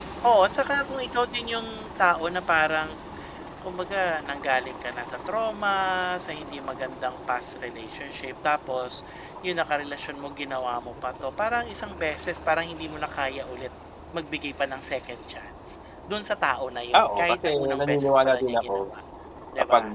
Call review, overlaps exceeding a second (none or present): present